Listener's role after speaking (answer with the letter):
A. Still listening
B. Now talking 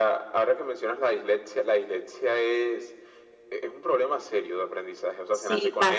B